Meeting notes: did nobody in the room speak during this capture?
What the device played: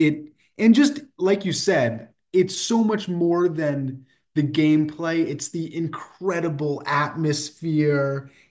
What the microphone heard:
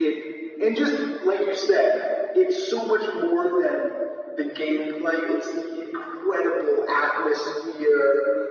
Yes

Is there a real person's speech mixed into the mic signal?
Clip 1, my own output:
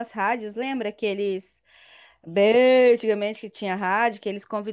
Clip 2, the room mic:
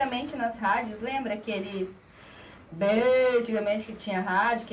No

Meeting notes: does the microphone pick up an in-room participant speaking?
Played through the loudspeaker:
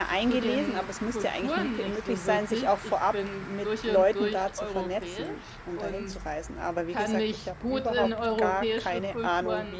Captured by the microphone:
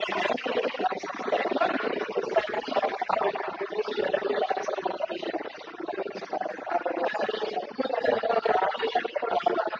No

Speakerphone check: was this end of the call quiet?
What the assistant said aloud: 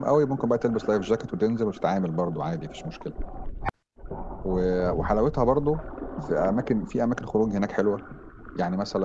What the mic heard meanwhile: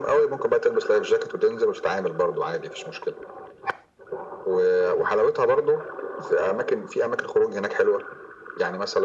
Yes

